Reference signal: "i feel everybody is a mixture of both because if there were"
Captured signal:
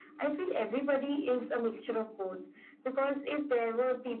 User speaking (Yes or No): No